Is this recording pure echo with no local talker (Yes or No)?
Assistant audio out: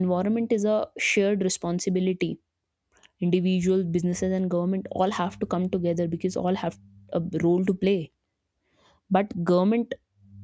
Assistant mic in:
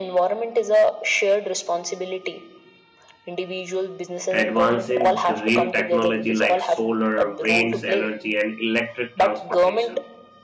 No